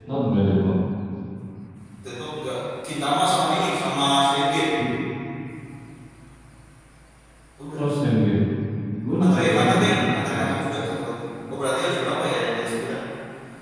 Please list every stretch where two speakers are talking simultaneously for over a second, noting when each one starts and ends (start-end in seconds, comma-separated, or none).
9.2-10.4